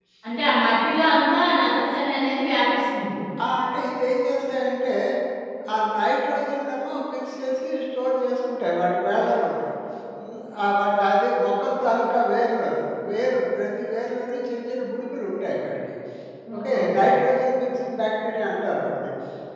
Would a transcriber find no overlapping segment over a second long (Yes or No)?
Yes